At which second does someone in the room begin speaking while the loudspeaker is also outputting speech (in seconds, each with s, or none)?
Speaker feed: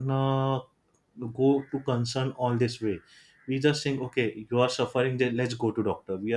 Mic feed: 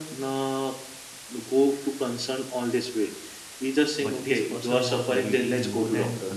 4.0 s